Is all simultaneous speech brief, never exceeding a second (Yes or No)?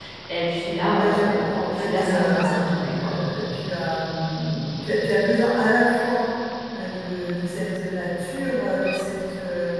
No